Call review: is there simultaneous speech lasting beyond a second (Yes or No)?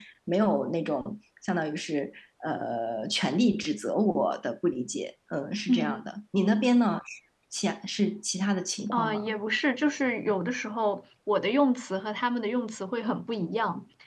No